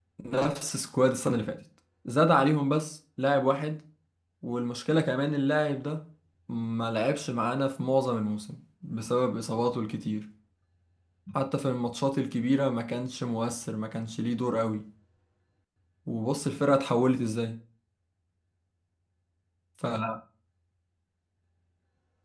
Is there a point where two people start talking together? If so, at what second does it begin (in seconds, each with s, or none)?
none